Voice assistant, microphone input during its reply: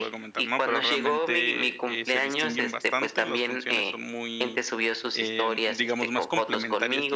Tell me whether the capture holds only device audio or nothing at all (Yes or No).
No